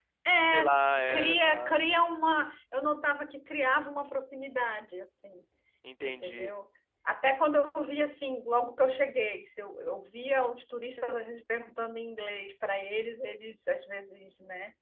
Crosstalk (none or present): present